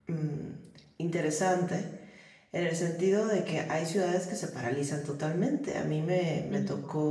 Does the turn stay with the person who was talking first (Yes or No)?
Yes